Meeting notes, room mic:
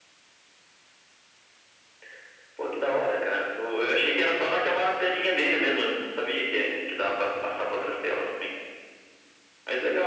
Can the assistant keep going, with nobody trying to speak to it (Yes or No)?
Yes